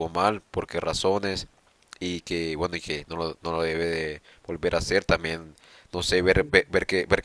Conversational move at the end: listening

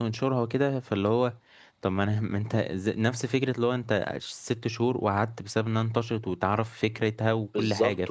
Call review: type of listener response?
taking over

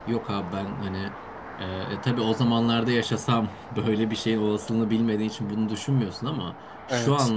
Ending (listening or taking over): listening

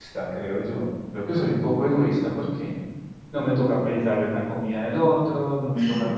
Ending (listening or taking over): listening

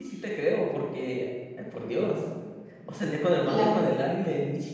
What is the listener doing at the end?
listening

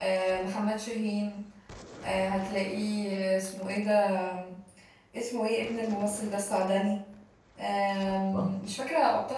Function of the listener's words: listening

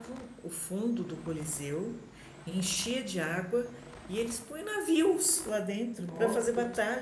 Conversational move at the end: listening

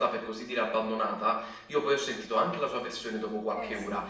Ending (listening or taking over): listening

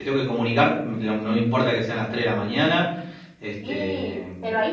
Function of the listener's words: taking over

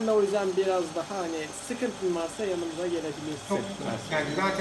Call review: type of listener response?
taking over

